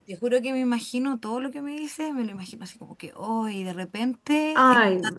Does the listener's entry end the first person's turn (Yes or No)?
No